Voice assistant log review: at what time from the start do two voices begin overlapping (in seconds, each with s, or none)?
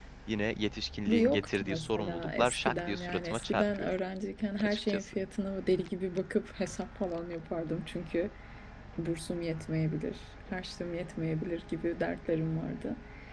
1.1 s